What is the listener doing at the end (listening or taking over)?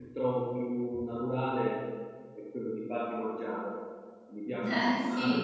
taking over